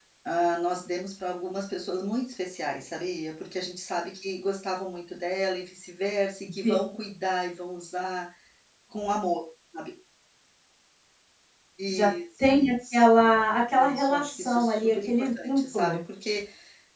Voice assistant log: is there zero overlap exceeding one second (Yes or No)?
No